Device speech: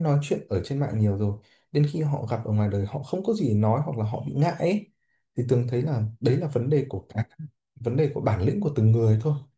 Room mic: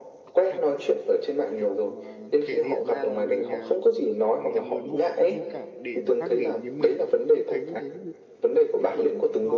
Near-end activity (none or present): present